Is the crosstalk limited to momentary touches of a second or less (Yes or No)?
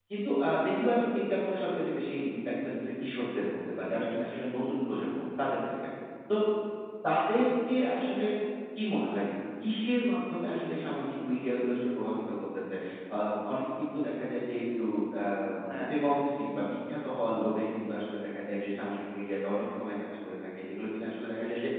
Yes